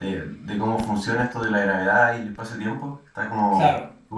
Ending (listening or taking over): listening